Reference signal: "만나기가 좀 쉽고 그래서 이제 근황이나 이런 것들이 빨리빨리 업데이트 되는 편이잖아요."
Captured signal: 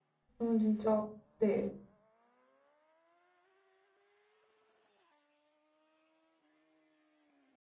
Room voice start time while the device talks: 0.4 s

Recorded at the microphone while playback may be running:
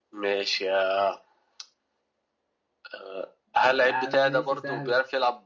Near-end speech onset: 3.6 s

